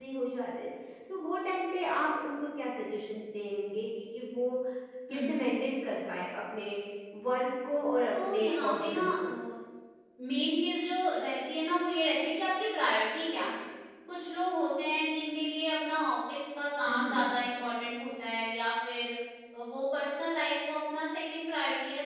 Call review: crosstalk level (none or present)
present